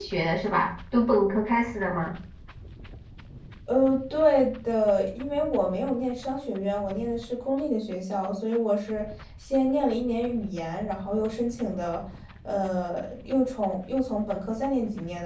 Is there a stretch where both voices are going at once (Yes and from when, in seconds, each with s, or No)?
No